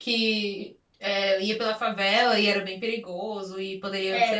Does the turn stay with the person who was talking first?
No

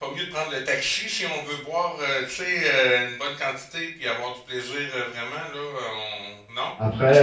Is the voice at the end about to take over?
No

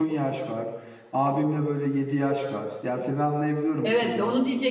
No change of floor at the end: No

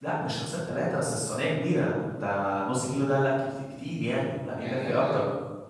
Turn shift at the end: Yes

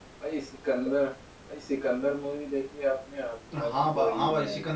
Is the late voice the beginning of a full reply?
Yes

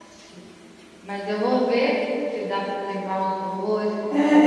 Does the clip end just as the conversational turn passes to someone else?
Yes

